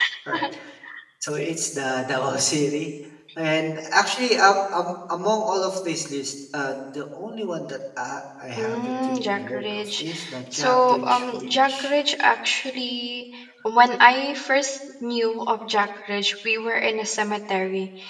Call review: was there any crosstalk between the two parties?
Yes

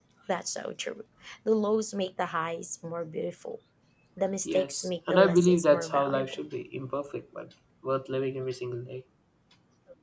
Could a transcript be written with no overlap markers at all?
No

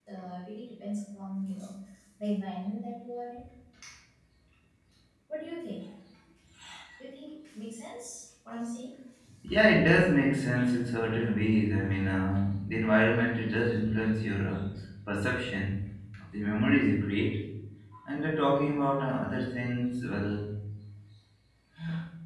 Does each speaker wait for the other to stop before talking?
Yes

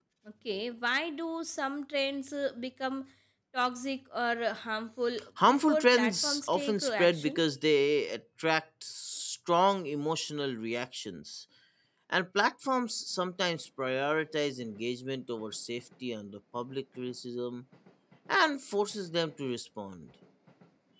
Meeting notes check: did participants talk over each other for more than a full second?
Yes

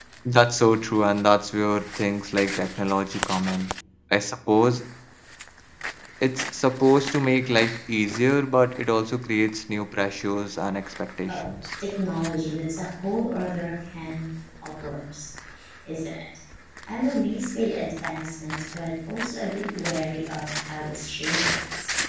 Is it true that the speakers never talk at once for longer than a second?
Yes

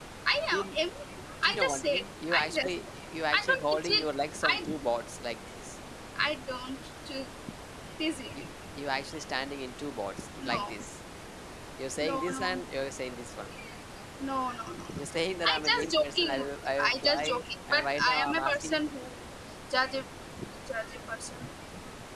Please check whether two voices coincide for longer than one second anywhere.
Yes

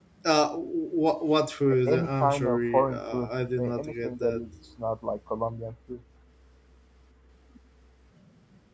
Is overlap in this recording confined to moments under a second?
No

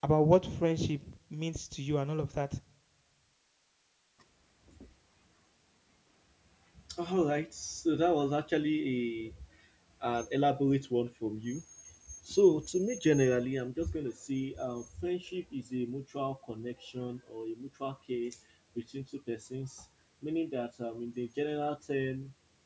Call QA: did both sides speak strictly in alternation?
Yes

